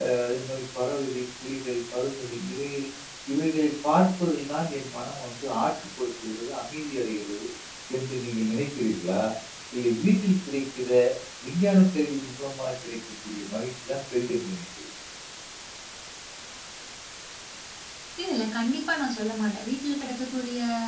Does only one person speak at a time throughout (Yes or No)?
Yes